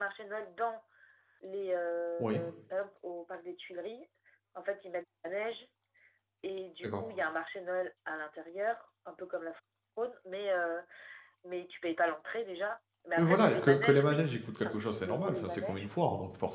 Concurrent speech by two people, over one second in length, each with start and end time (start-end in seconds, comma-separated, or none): 13.2-15.9